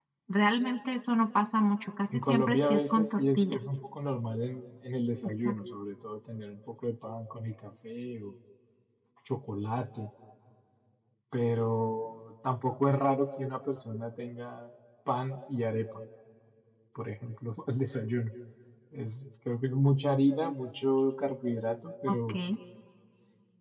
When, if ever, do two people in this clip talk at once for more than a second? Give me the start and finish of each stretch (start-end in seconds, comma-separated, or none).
2.1-3.6